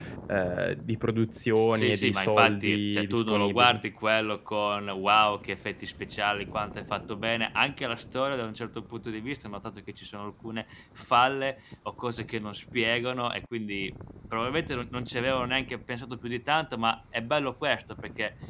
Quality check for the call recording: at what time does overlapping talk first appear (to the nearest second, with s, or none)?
2 s